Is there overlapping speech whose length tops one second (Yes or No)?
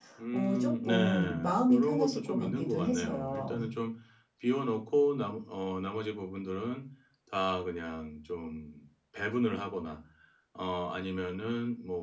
Yes